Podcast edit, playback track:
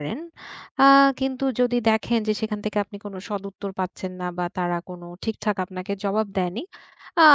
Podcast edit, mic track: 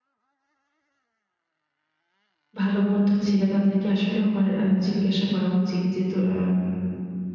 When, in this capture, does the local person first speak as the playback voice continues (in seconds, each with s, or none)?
2.6 s